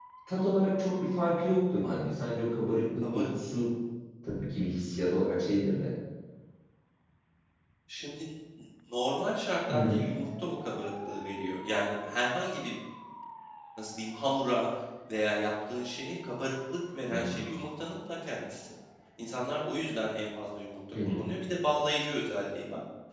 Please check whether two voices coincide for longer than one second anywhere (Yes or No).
No